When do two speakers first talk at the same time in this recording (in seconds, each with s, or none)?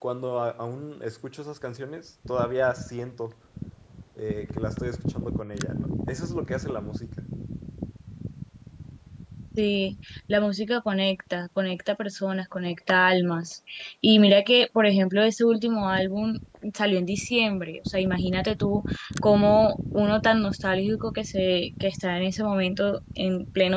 none